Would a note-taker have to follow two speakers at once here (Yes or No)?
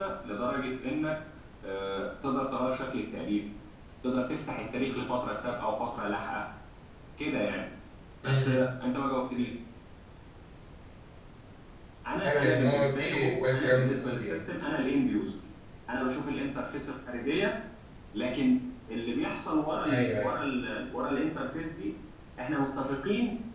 Yes